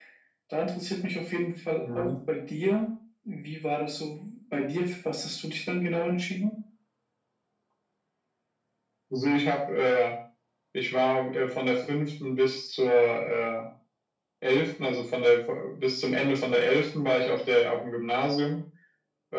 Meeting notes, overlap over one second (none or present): none